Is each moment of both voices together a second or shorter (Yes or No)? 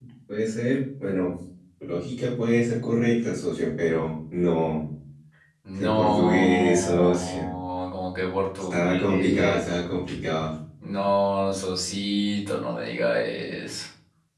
No